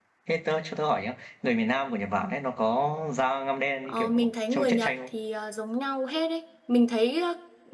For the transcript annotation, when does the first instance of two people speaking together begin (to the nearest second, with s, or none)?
4 s